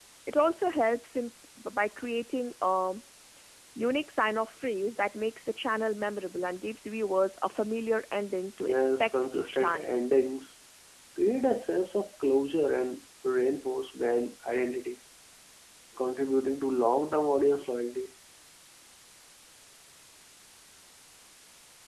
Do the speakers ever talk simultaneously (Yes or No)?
Yes